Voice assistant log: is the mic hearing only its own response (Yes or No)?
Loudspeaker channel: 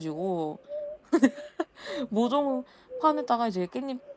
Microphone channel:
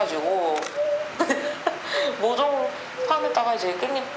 Yes